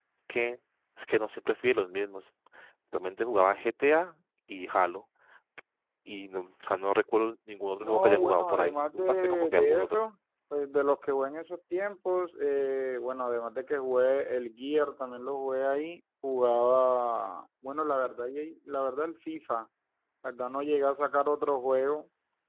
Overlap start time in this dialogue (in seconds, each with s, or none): 7.8 s